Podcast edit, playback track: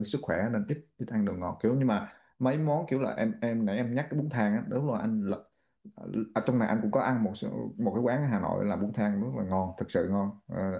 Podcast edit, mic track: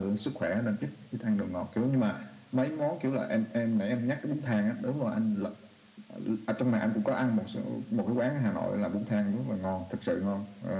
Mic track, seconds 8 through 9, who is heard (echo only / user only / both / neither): echo only